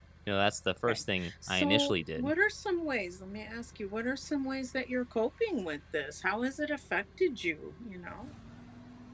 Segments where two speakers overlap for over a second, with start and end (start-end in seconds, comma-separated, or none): 0.9-2.3